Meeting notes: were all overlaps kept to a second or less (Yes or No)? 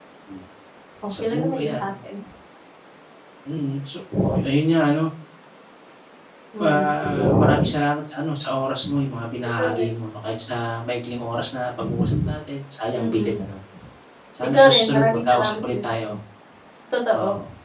No